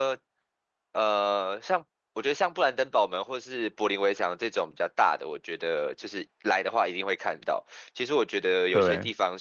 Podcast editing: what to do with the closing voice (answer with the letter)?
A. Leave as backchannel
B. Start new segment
A